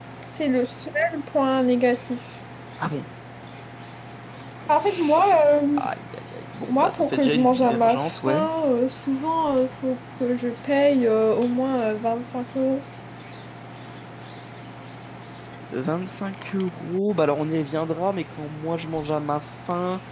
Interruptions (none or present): present